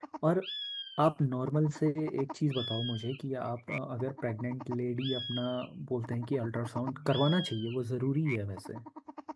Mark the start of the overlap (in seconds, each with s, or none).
none